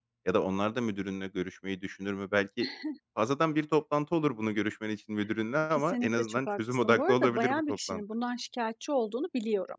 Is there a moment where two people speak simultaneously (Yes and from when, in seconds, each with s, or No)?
Yes, from 5.7 s